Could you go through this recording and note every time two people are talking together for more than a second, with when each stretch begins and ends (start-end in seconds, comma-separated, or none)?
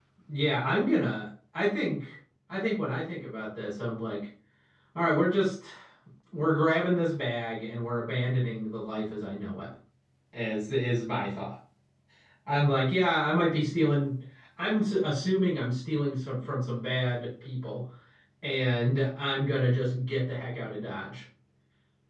none